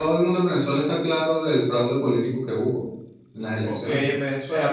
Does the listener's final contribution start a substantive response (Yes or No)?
Yes